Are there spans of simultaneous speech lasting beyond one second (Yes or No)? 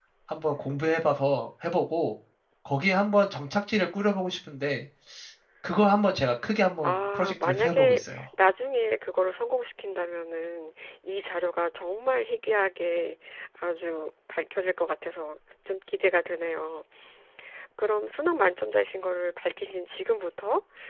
Yes